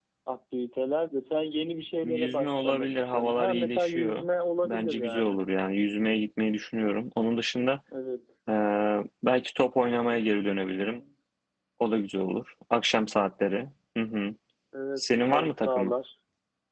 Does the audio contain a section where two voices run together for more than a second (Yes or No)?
Yes